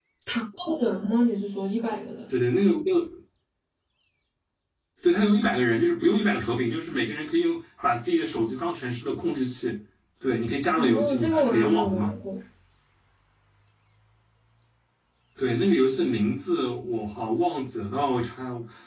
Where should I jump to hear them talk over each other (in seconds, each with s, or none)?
10.8 s